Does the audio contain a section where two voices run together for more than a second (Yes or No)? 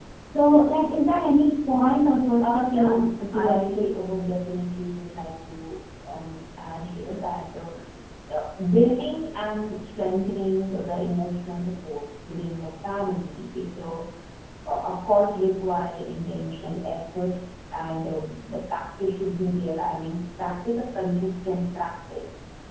Yes